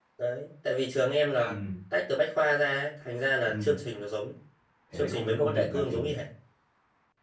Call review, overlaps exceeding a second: present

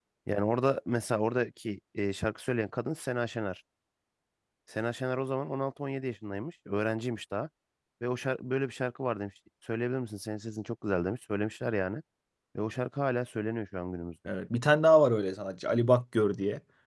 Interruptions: none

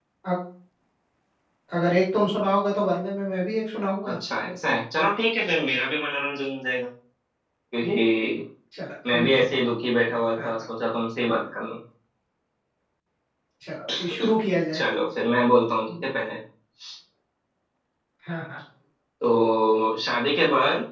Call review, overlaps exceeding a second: none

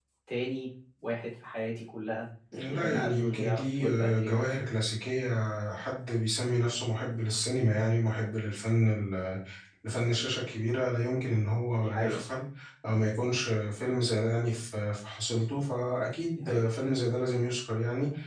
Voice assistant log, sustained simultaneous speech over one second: present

